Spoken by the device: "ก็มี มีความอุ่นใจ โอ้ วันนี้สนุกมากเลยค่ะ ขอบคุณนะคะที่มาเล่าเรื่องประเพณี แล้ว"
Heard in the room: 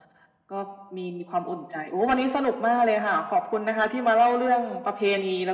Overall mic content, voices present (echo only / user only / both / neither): echo only